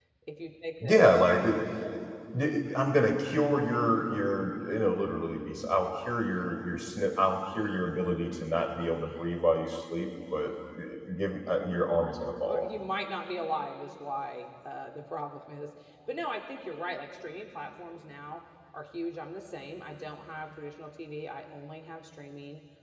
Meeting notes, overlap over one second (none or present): none